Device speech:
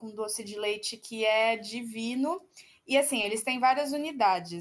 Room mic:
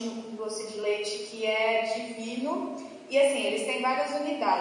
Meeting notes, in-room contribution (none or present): none